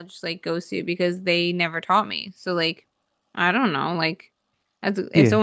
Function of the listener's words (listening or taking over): listening